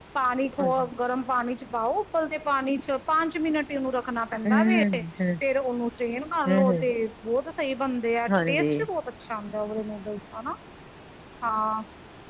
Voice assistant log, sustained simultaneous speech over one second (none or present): none